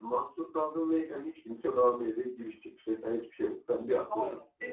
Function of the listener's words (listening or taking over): taking over